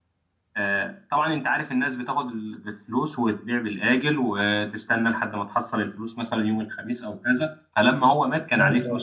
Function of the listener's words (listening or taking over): listening